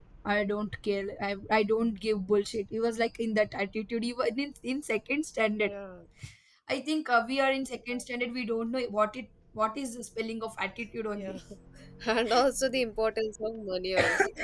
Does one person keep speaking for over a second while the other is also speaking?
No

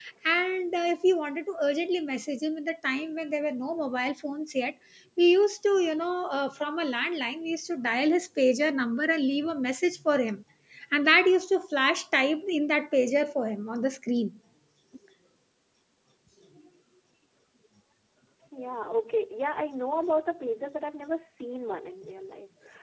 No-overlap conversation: Yes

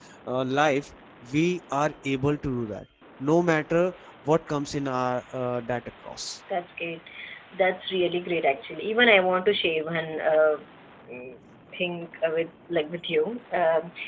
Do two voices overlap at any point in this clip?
No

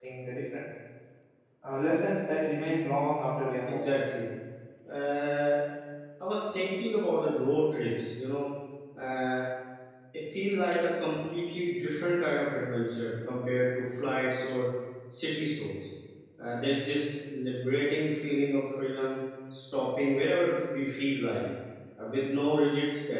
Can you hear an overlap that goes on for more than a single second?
No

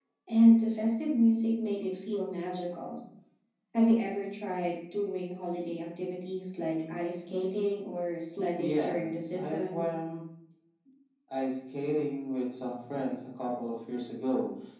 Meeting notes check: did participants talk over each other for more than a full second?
Yes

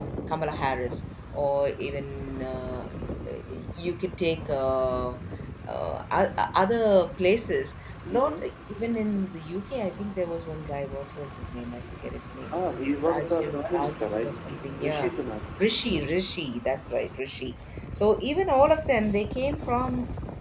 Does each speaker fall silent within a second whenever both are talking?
No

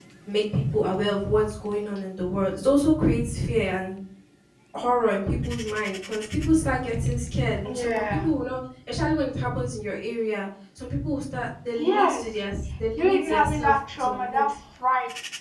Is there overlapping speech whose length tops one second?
Yes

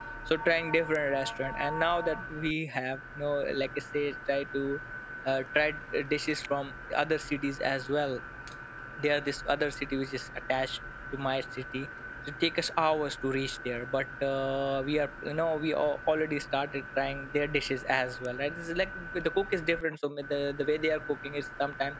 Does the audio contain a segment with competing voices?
No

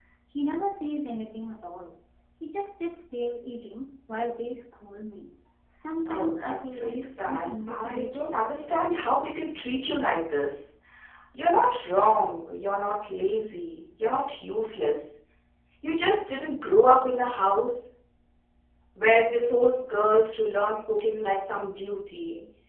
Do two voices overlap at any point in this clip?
Yes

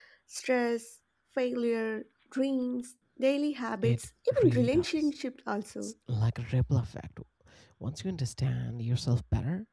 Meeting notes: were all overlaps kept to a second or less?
No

